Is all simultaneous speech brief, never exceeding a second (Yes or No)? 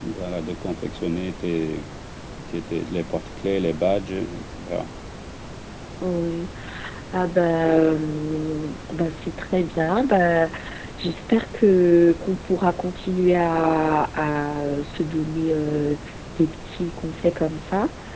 Yes